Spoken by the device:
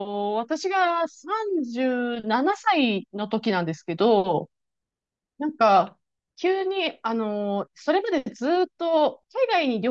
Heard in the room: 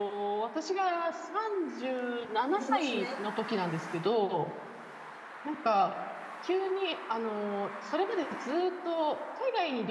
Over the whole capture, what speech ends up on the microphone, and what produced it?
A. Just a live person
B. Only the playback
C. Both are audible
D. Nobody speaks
C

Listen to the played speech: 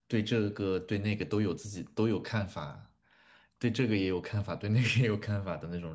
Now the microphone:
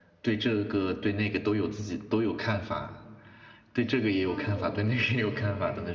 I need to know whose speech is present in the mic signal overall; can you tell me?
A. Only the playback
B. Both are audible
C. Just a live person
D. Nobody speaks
B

